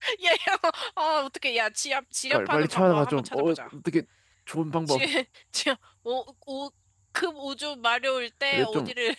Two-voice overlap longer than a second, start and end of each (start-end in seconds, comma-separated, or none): 2.3-3.6